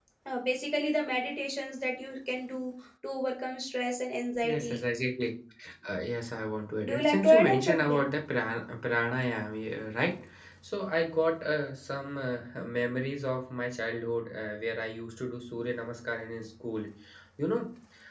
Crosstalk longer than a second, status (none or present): present